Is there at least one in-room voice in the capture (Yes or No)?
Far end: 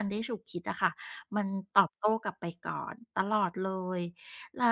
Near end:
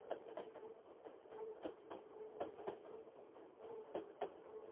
No